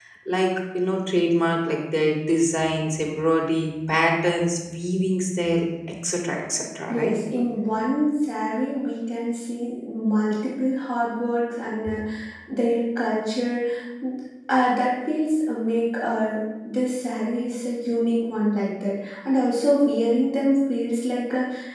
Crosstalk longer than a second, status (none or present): none